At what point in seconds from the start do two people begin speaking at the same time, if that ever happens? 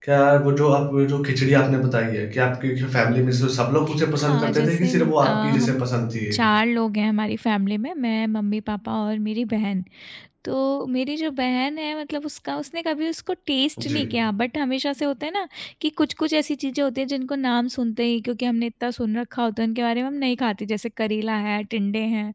4.2 s

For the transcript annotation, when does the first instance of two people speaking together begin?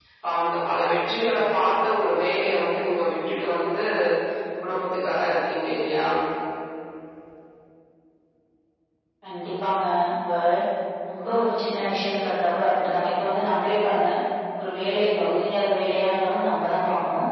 none

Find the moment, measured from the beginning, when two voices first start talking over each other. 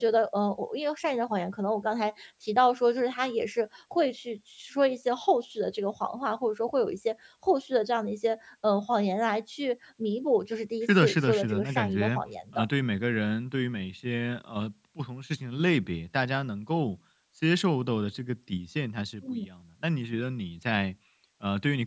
10.8 s

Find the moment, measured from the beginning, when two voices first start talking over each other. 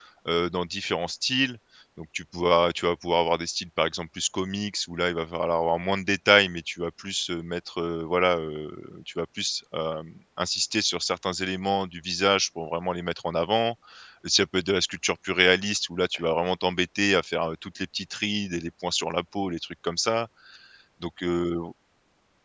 none

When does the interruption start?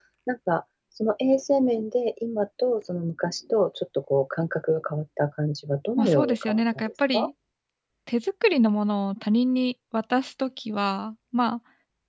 6.0 s

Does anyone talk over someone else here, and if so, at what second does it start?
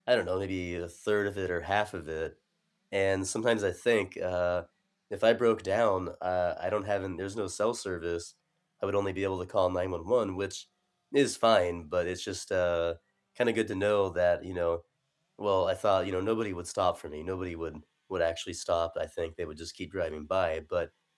none

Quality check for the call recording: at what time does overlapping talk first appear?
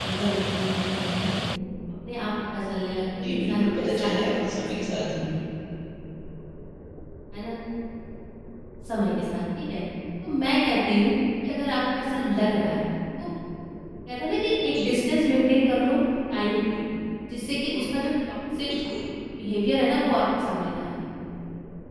3.2 s

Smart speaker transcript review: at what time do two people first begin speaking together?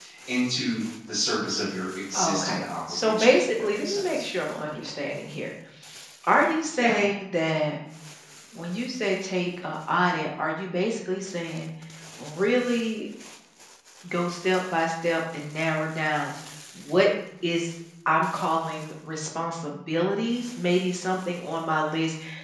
2.1 s

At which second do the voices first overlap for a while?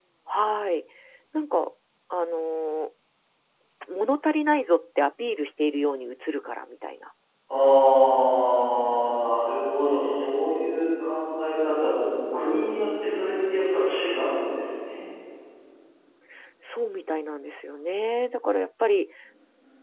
none

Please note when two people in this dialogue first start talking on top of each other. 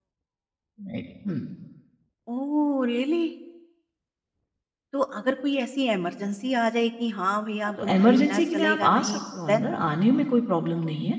7.8 s

